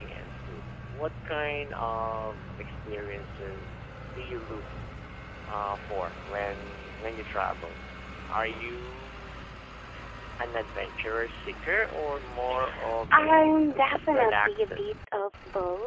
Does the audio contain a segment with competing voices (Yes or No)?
Yes